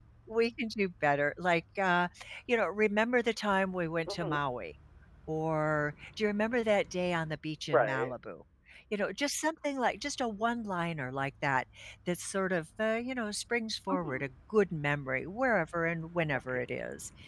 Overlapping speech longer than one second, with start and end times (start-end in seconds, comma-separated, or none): none